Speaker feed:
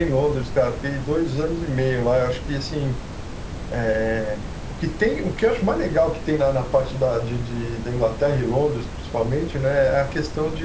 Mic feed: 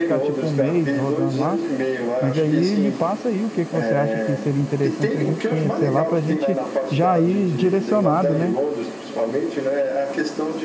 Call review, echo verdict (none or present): present